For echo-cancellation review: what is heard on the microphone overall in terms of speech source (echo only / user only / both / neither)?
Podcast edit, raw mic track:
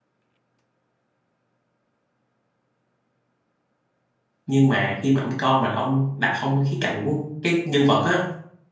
user only